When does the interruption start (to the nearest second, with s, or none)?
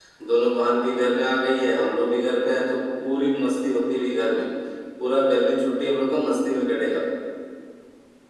none